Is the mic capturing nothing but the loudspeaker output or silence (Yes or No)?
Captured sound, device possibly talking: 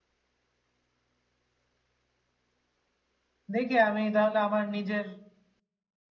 No